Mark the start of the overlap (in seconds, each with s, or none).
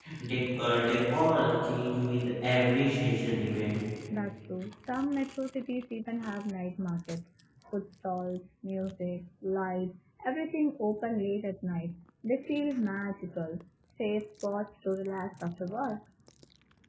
none